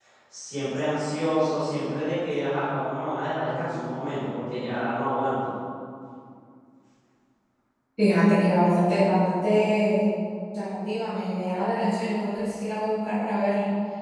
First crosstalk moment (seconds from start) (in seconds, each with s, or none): none